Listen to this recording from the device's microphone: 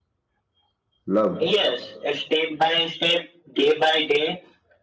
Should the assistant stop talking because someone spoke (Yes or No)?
Yes